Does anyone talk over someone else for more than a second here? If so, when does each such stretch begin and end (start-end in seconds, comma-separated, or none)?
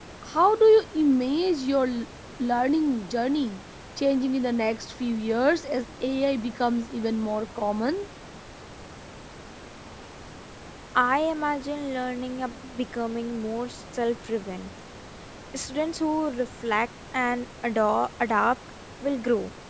none